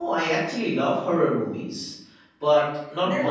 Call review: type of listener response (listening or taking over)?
taking over